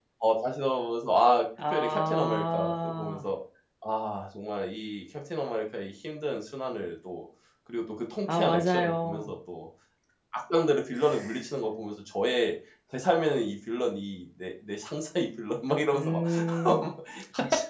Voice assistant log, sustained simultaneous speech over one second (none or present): present